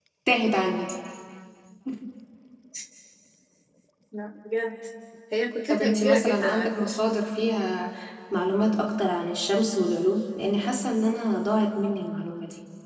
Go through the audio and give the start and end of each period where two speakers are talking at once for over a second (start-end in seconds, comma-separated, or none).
5.7-7.0